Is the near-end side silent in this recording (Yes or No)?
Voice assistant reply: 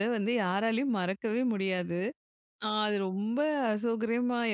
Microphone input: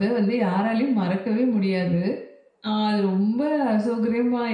Yes